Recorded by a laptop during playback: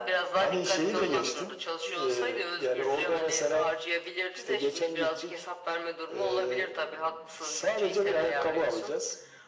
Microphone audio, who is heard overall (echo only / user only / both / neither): echo only